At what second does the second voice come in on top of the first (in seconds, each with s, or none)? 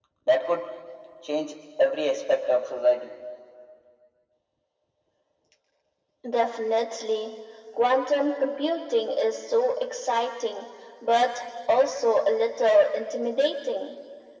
none